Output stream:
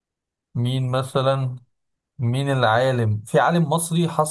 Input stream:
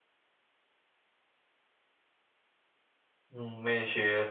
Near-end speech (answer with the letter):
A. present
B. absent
A